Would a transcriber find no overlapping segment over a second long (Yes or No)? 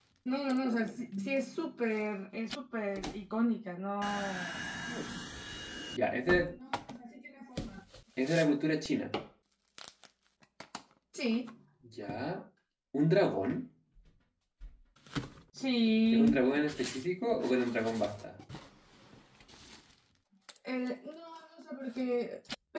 Yes